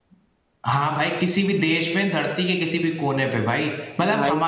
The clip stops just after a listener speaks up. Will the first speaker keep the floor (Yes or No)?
Yes